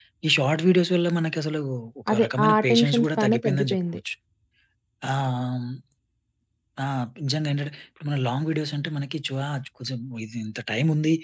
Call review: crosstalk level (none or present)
present